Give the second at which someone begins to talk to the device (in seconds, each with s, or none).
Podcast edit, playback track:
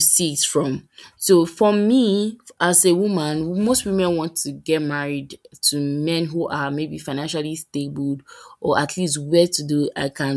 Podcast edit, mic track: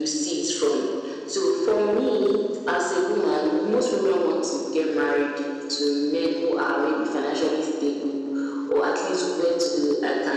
none